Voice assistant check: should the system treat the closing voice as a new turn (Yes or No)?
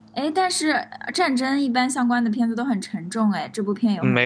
Yes